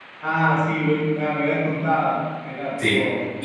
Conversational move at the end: taking over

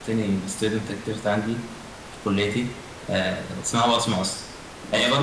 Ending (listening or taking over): listening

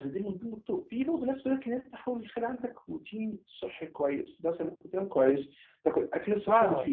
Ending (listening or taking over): listening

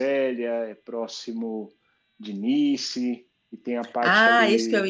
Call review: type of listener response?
taking over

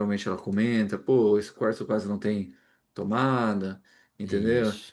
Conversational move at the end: listening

